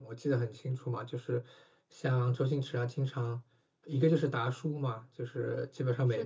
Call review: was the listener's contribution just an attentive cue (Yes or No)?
Yes